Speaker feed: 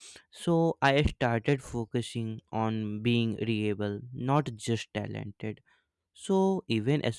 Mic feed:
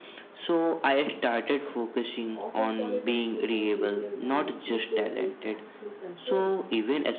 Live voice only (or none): Office politics become easier when ego is actually controlled.